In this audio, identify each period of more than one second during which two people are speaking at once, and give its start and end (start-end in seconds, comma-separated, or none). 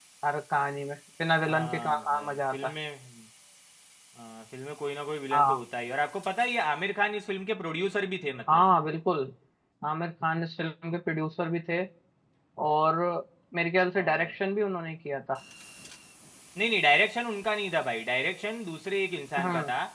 1.5-2.7